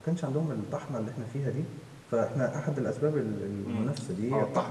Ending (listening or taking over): taking over